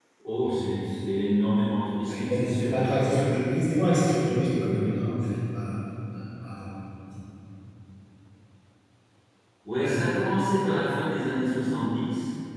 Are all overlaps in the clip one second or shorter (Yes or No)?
No